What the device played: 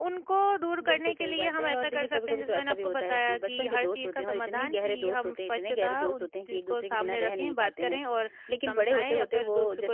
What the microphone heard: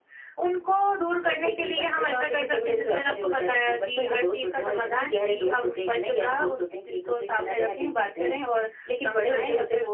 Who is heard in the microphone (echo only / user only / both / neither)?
echo only